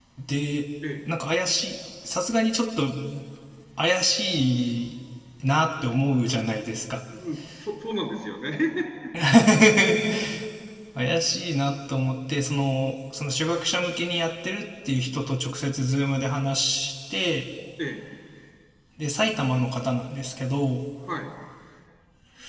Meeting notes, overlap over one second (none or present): none